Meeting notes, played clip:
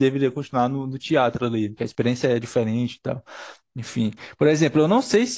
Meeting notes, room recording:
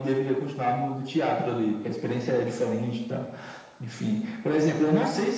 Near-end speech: none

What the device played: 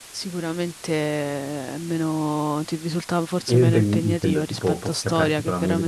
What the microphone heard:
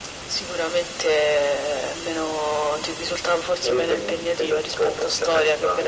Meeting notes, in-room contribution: none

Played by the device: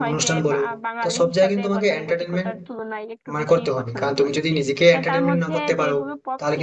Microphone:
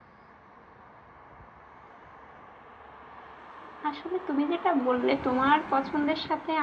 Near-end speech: present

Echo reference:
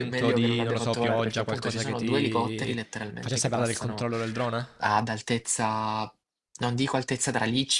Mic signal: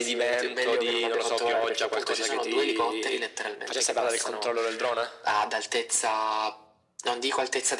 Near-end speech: none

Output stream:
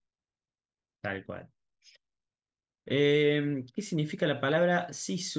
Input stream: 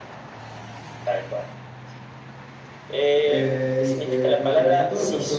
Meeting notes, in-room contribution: present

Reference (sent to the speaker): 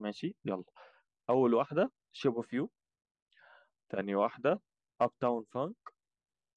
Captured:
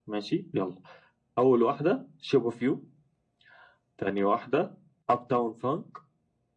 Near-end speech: none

